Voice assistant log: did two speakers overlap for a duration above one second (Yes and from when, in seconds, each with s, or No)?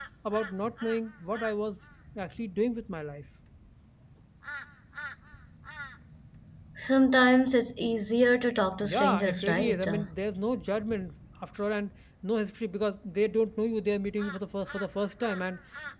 Yes, from 8.8 s